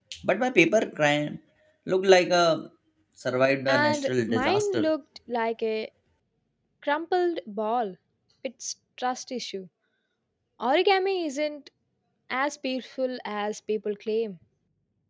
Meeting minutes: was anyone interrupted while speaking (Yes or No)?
Yes